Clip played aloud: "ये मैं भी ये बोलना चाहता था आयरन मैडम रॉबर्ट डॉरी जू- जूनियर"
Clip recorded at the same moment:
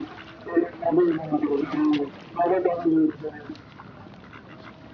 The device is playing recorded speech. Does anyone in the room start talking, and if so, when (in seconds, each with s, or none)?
none